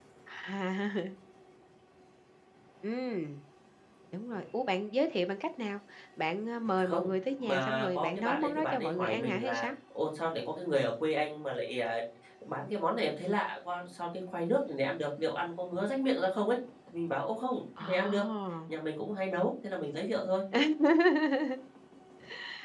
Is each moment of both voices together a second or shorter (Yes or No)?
No